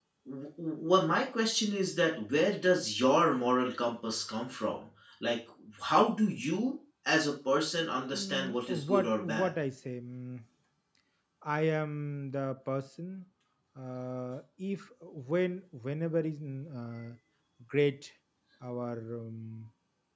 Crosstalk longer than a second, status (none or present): present